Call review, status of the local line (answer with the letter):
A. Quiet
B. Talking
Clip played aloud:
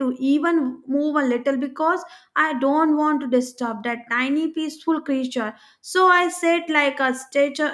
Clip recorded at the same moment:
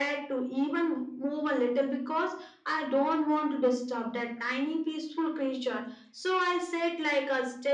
A